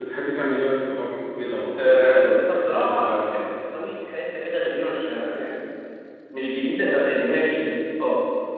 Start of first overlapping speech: 1.8 s

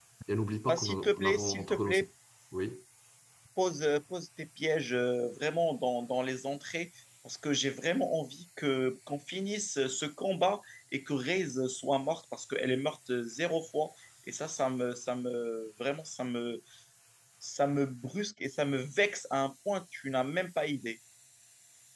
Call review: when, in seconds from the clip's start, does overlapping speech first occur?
0.6 s

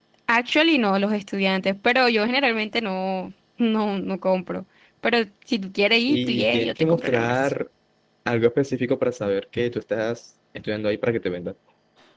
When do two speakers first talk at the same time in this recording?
6.1 s

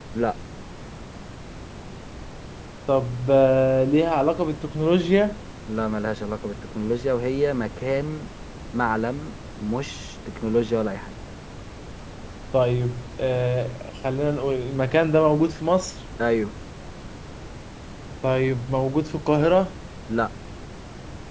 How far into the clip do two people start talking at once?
none

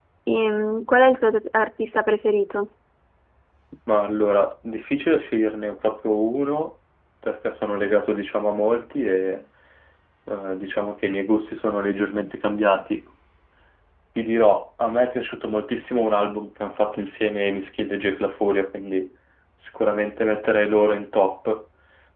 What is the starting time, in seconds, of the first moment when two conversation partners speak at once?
none

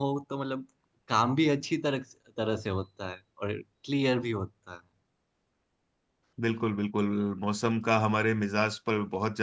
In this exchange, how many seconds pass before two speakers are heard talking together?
none

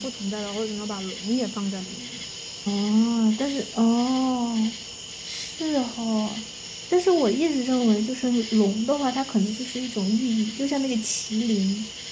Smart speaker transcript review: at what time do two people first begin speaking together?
none

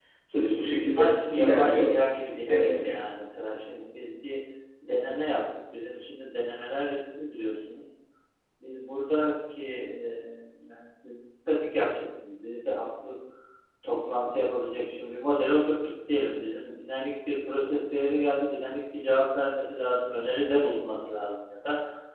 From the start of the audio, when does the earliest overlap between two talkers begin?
0.5 s

